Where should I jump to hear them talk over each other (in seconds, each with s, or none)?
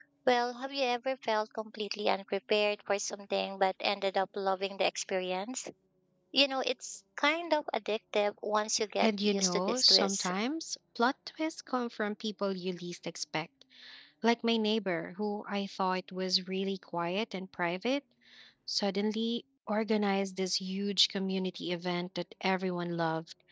9.0 s